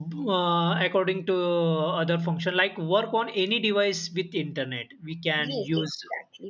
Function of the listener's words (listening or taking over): taking over